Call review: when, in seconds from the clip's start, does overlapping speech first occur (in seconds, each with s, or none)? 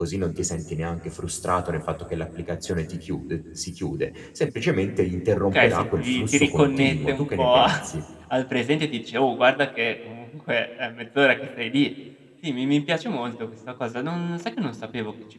5.5 s